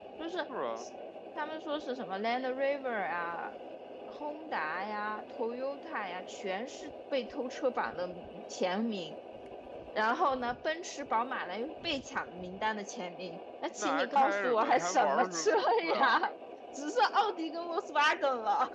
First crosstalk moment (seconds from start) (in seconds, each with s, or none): 13.8 s